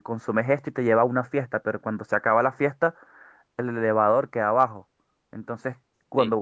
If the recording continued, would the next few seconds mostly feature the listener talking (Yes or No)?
Yes